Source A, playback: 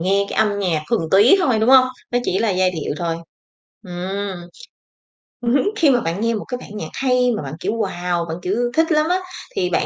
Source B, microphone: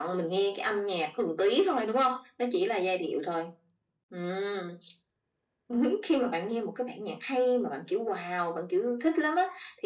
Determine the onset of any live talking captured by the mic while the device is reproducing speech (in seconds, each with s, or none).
none